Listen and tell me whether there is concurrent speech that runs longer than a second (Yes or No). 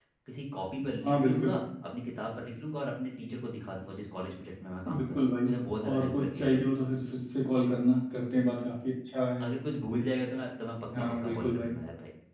Yes